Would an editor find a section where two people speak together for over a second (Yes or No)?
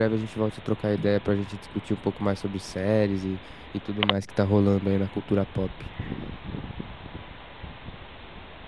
No